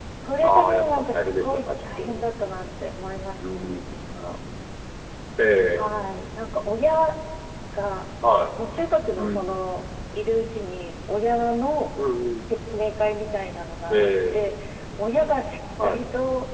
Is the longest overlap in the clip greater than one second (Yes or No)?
Yes